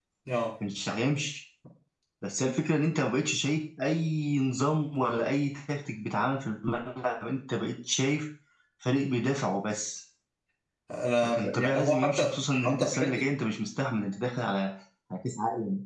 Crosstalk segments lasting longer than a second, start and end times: 11.2-13.2

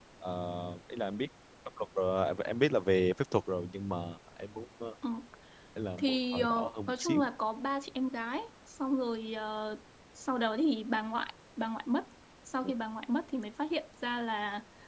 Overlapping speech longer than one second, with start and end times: 6.0-7.2

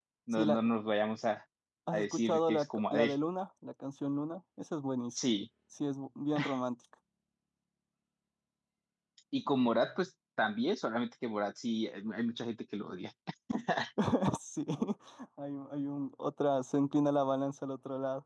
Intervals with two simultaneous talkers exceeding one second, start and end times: 1.9-3.1

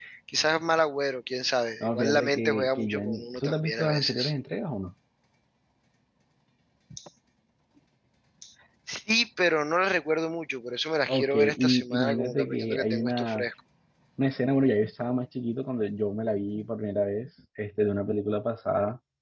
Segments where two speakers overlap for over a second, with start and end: 1.8-4.3, 11.1-13.4

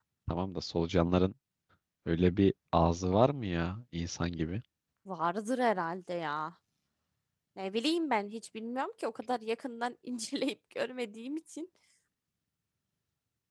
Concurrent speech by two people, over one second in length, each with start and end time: none

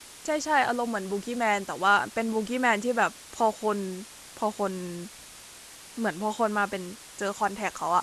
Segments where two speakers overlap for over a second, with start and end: none

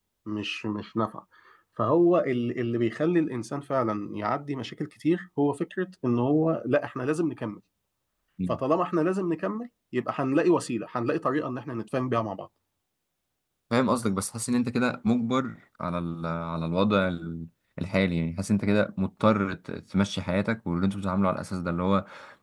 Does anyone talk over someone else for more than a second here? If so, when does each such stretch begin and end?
none

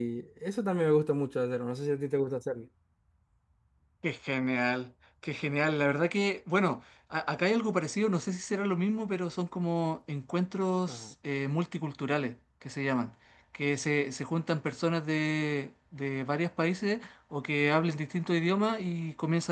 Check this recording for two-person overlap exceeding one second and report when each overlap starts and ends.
none

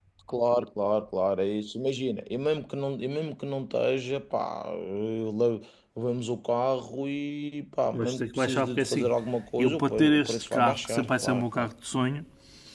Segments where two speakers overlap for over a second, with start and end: 7.9-9.2, 9.6-11.7

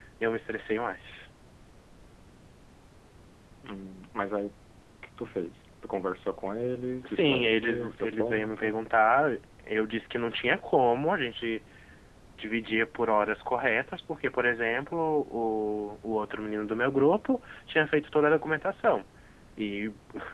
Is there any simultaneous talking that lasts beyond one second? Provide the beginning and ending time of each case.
7.1-8.7

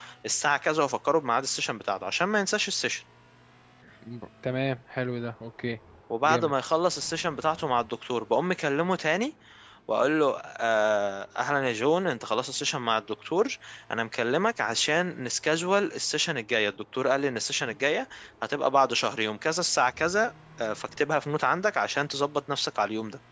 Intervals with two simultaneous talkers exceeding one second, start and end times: none

